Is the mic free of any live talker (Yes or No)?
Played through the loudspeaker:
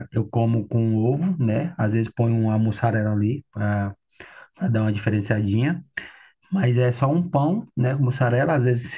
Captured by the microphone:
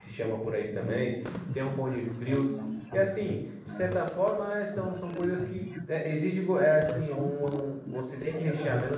No